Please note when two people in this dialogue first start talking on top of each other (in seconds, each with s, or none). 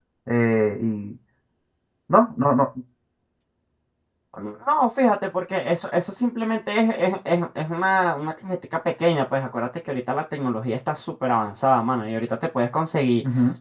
none